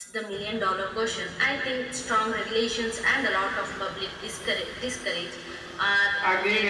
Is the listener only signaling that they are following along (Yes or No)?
No